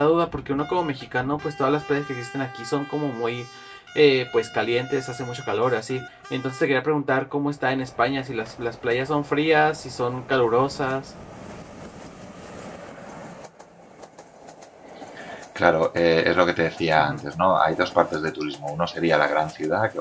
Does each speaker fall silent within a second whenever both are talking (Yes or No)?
Yes